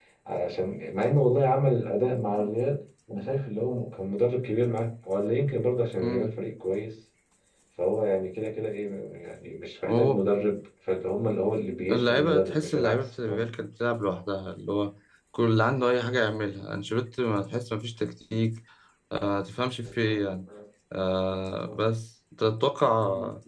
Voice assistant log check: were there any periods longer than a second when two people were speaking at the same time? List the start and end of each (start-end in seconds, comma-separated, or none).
11.9-13.2